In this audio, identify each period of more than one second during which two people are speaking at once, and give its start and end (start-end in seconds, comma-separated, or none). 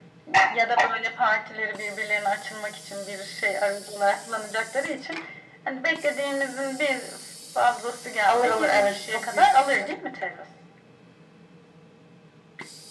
8.3-9.9